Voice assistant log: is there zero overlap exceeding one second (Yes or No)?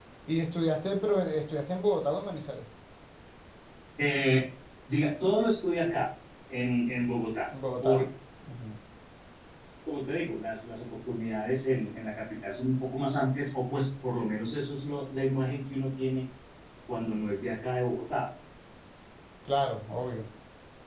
Yes